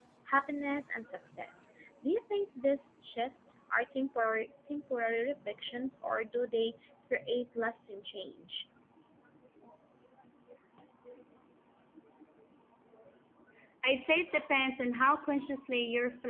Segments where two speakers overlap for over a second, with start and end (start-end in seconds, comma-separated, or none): none